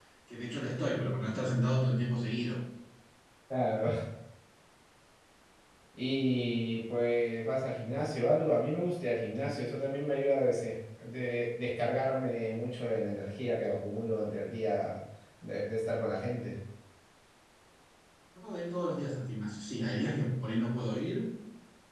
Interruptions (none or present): none